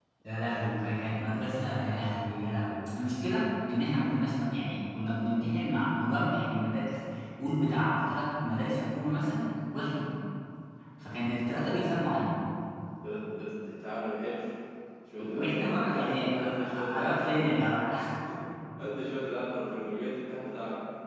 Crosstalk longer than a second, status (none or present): present